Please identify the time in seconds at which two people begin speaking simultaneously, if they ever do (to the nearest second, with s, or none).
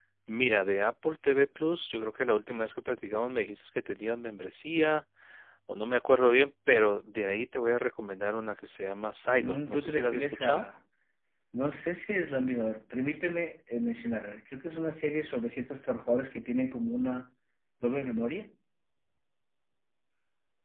9 s